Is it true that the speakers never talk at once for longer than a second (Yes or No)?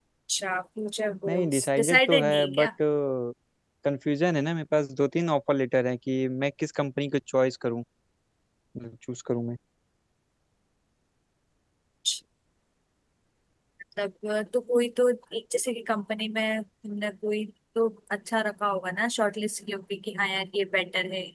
No